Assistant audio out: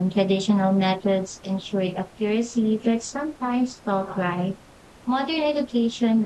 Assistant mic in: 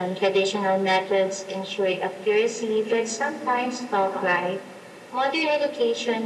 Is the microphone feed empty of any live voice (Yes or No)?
Yes